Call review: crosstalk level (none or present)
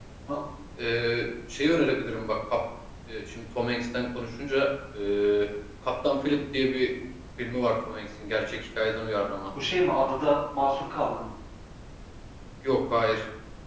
none